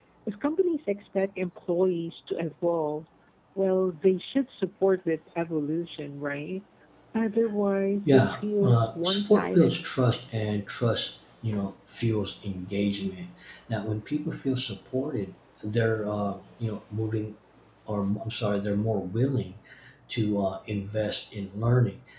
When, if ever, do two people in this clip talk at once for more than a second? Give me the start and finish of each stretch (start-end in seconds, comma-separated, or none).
8.1-9.8